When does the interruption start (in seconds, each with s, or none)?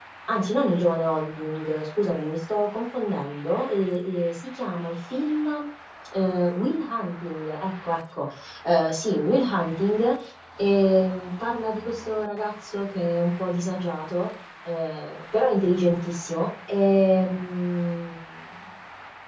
none